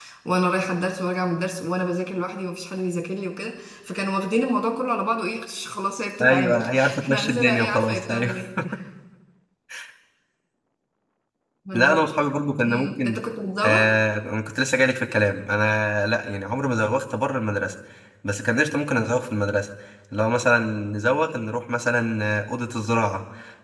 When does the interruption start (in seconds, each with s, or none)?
6.2 s